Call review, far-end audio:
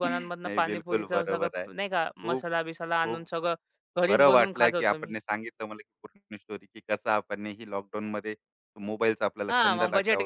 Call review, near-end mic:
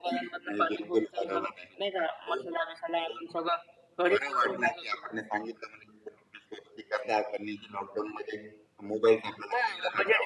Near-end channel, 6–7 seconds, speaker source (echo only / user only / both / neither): echo only